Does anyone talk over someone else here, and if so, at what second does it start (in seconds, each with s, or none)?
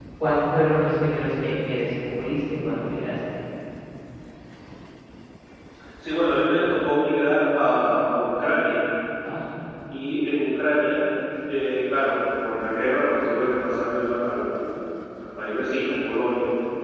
none